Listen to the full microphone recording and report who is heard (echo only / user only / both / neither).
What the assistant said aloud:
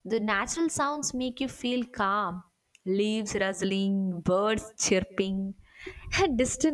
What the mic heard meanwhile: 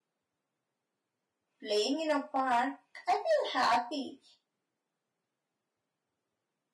user only